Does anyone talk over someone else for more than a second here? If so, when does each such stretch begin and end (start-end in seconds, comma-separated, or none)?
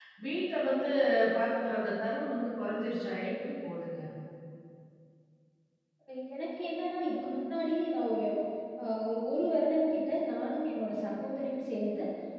none